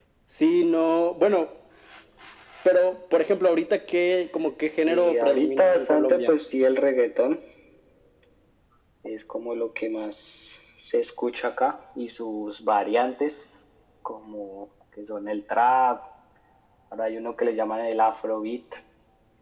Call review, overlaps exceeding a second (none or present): present